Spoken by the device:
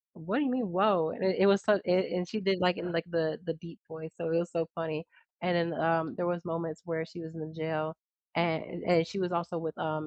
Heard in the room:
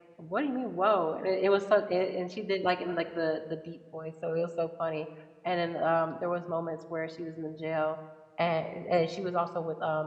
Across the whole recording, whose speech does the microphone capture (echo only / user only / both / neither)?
echo only